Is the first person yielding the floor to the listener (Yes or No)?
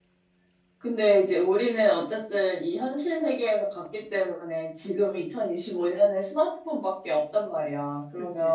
No